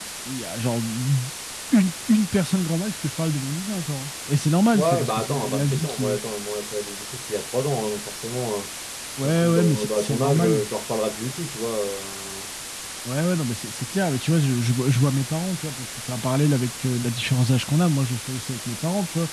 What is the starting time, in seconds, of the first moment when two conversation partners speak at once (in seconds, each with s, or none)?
4.7 s